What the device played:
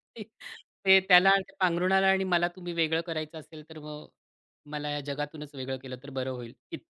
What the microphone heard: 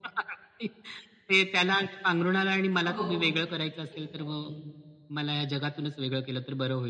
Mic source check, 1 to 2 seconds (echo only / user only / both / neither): echo only